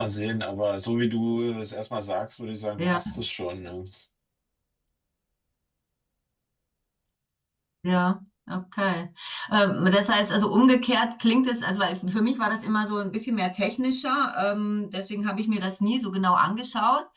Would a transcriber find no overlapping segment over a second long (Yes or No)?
Yes